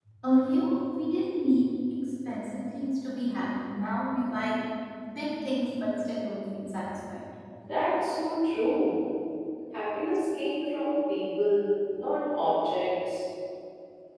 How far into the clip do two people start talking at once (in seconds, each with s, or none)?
none